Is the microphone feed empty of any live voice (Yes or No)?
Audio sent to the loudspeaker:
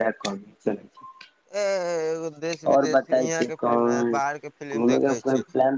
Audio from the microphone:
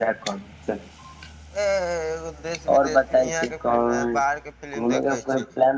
Yes